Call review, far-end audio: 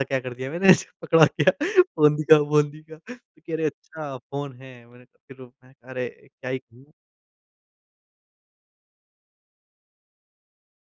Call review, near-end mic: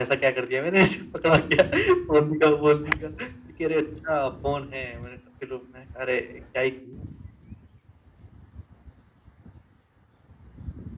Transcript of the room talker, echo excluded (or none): none